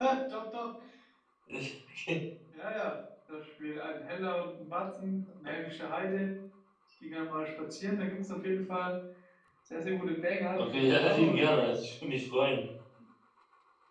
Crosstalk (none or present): present